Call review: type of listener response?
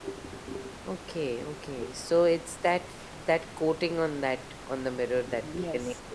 taking over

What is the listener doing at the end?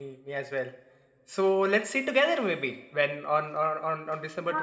taking over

